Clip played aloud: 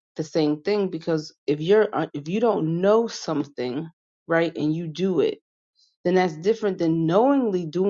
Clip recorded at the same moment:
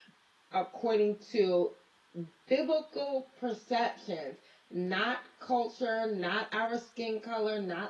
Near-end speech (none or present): present